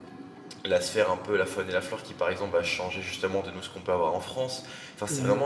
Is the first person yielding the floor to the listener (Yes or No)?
No